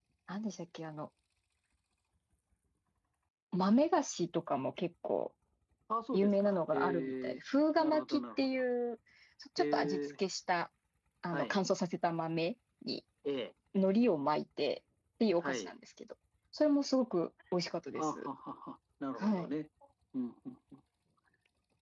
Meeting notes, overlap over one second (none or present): present